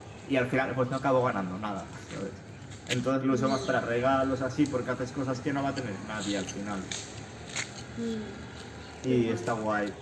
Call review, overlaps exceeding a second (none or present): none